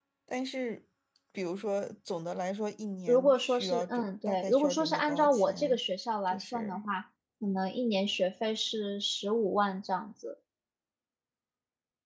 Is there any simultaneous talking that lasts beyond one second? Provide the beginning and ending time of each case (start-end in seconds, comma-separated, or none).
3.1-5.8